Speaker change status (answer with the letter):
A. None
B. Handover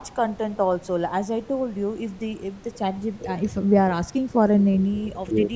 A